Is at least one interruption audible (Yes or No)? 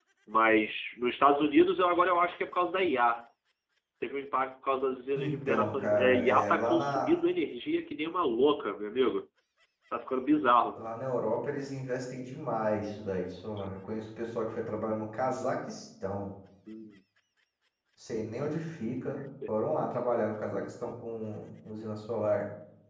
Yes